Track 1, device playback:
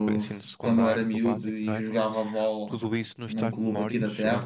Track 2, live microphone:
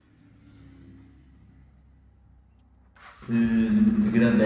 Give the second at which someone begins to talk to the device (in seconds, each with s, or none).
3.2 s